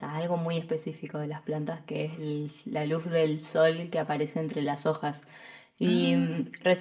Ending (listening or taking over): listening